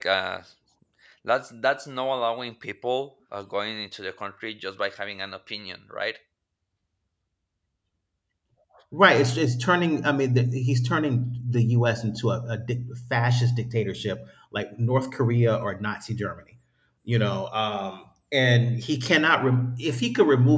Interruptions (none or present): none